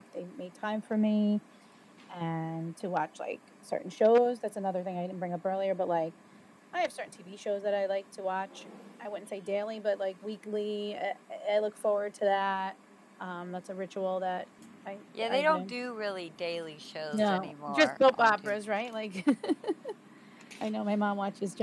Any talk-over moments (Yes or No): Yes